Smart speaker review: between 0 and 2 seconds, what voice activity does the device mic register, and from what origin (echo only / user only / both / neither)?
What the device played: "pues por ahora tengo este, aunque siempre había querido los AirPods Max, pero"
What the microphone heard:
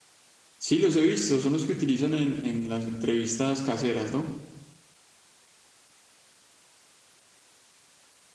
user only